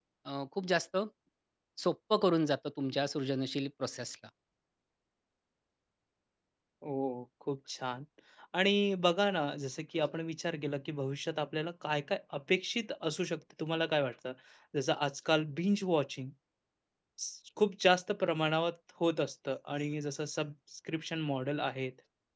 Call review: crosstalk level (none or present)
none